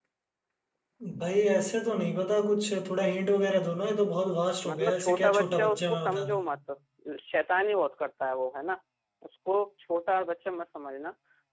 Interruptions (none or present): present